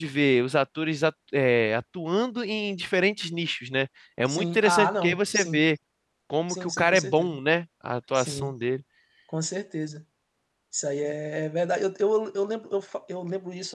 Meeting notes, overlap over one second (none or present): present